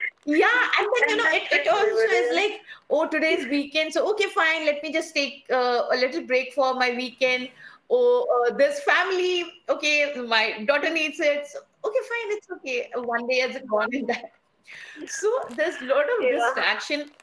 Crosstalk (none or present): present